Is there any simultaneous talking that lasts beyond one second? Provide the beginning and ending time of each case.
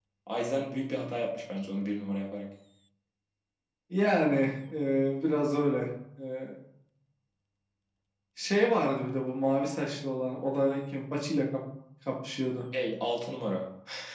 none

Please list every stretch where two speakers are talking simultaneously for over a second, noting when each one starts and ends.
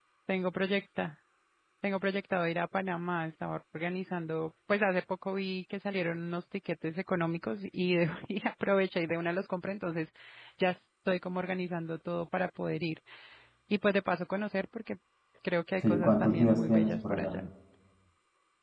15.9-17.4

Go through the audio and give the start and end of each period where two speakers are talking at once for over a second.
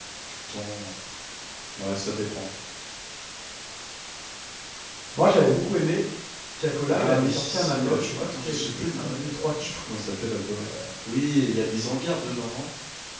6.9-9.2

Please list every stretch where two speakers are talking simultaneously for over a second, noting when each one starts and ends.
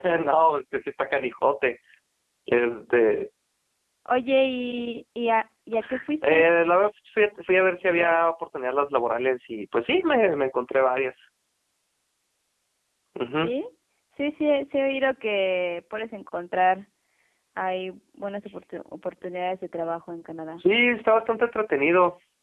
none

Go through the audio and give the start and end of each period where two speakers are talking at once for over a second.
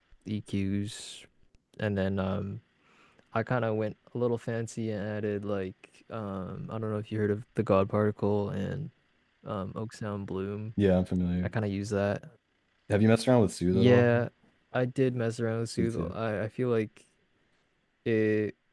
none

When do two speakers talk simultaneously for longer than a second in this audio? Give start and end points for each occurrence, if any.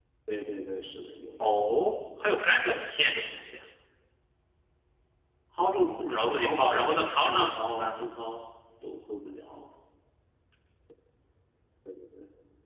5.7-8.1

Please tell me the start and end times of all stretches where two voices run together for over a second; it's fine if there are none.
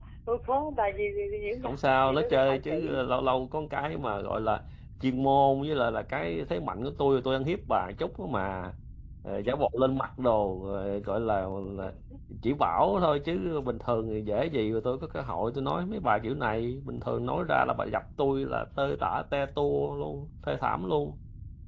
1.6-3.0

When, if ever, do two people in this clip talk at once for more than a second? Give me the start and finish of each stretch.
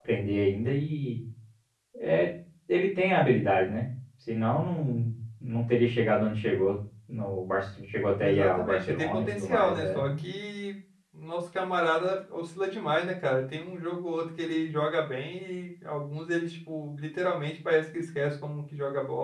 8.2-10.1

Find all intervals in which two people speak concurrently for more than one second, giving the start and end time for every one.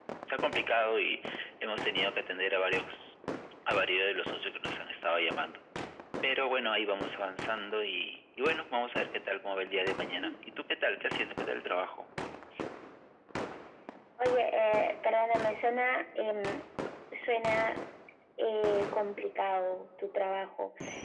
none

